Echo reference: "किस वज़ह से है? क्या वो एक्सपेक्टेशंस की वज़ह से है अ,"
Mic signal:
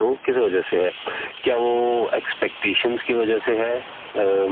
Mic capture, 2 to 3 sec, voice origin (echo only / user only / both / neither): echo only